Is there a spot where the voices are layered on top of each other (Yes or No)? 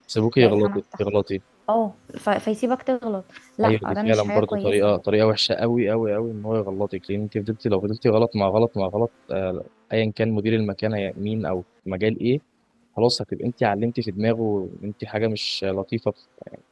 Yes